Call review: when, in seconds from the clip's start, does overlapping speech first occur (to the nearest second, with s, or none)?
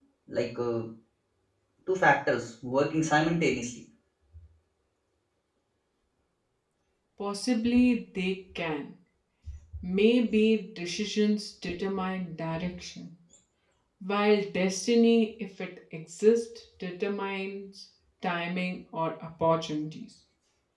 none